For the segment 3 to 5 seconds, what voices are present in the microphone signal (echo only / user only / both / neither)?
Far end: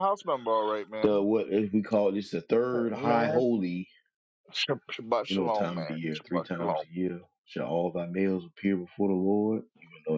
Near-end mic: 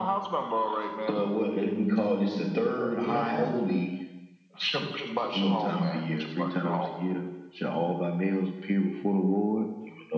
echo only